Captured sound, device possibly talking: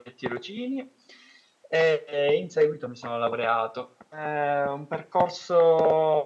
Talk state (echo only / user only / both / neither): user only